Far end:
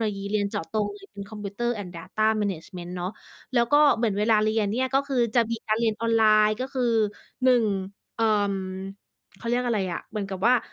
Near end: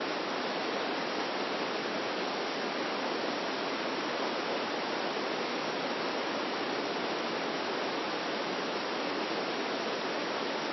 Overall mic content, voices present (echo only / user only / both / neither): neither